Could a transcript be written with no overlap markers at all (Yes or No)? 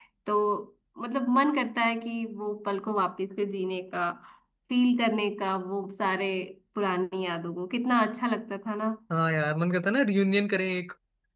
Yes